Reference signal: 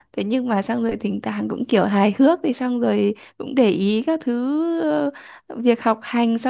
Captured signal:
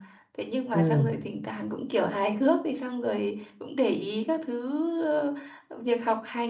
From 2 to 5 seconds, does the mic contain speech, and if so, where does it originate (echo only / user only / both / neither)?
echo only